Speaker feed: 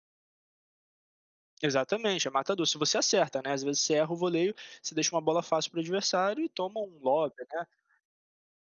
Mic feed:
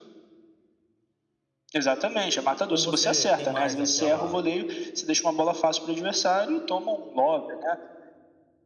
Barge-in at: 3 s

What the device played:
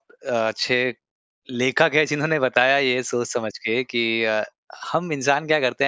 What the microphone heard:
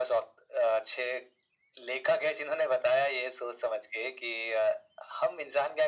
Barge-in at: none

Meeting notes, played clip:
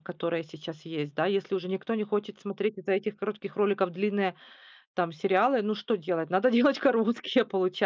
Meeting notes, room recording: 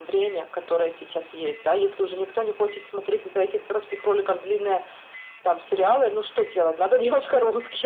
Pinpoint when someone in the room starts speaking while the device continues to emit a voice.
none

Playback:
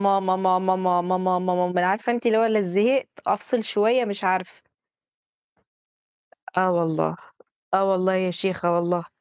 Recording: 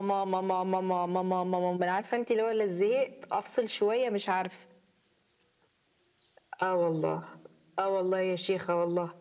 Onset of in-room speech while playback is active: none

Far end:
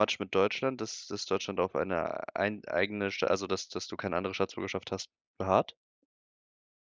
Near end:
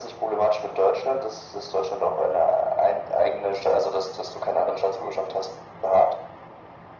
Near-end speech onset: none

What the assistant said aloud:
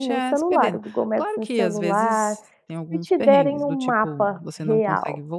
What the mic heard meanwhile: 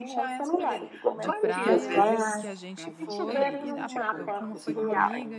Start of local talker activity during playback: 1 s

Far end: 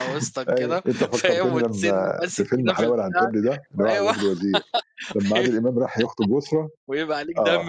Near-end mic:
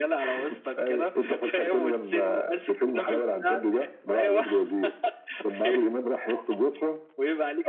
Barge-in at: none

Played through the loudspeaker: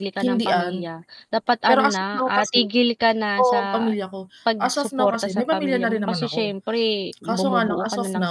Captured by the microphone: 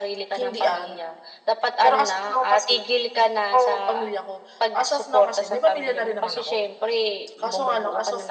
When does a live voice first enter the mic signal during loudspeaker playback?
none

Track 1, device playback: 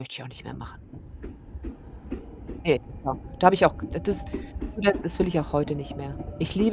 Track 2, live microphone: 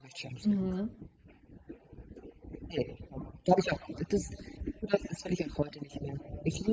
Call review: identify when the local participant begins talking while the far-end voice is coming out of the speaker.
0 s

